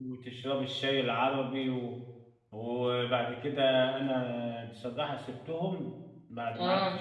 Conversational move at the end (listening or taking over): listening